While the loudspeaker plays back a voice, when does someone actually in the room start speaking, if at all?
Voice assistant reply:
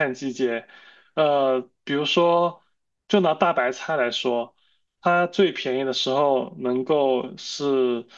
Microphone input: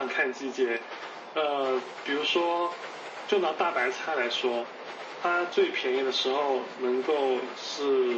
none

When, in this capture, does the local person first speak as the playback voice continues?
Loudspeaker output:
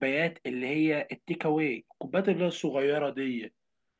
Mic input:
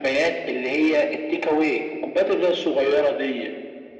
none

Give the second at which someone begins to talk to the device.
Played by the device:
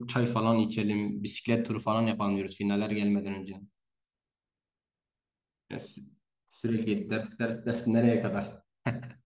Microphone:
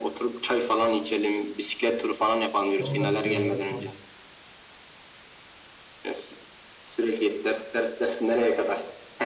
3 s

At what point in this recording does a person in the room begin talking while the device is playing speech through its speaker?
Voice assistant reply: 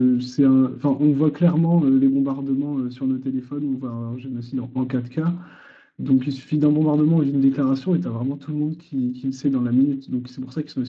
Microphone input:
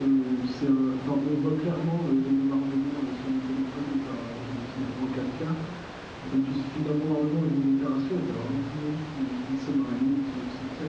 none

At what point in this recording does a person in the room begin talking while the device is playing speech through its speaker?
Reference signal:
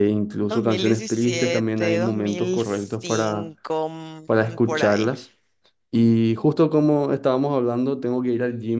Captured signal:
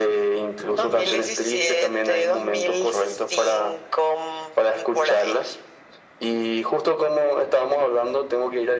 none

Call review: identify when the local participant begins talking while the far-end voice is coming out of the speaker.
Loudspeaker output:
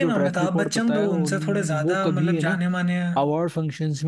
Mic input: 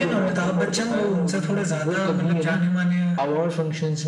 none

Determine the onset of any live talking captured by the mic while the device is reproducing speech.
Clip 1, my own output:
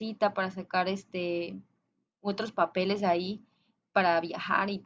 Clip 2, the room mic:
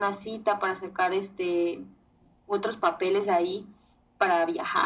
none

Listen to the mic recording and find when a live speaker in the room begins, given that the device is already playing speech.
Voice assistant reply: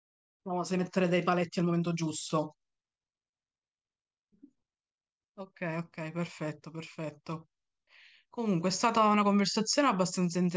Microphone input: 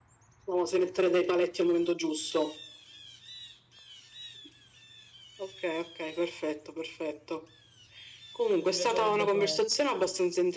8 s

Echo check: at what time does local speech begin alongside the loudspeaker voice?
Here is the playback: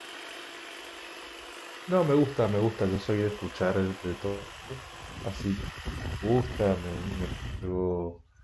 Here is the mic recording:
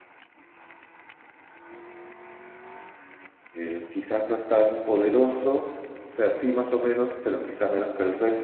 4 s

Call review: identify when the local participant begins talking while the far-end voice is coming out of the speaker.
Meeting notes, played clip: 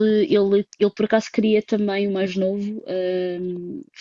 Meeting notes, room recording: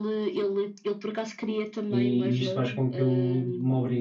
2 s

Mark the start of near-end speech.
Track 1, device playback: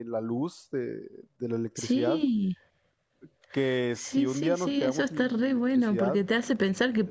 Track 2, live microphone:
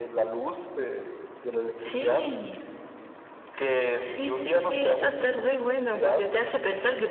none

